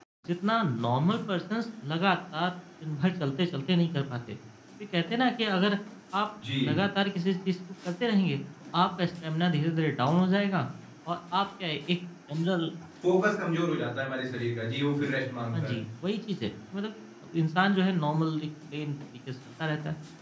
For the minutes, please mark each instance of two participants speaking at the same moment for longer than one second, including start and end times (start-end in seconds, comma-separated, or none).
none